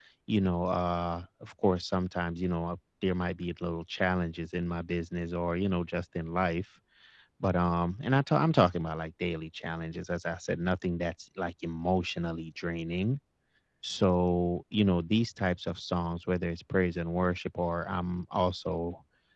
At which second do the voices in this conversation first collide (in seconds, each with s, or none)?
none